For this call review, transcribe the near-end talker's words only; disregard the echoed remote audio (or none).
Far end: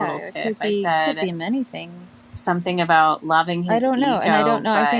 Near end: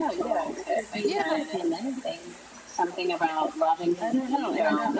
Yeah,